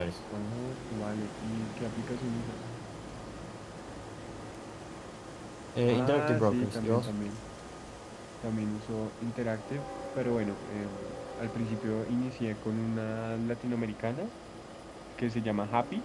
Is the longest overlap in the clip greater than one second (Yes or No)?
Yes